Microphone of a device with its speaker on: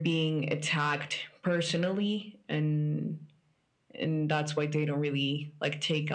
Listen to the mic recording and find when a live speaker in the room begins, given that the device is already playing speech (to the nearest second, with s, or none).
none